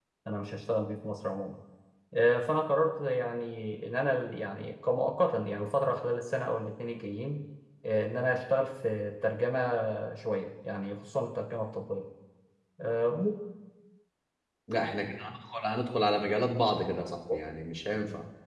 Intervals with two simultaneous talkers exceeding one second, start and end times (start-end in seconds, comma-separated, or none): none